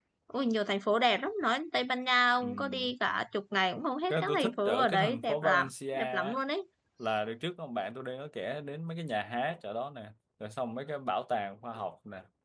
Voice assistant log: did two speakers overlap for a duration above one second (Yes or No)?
Yes